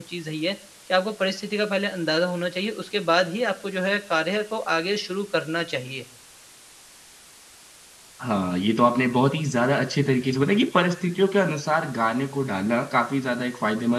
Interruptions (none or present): none